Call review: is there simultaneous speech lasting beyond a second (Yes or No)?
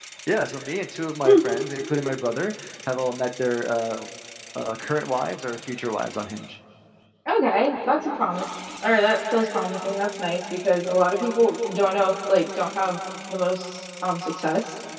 No